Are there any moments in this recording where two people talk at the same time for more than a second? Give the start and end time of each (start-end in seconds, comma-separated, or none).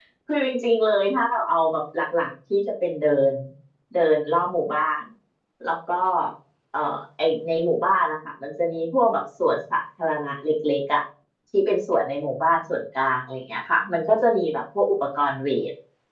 none